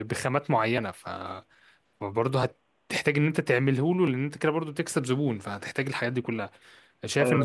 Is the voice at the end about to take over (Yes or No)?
No